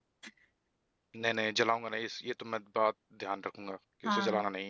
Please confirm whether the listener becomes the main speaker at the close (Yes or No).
Yes